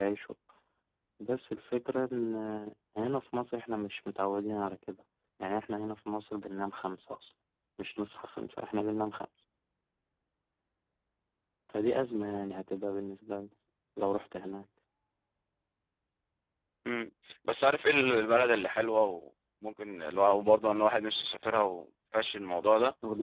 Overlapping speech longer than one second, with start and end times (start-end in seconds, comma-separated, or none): none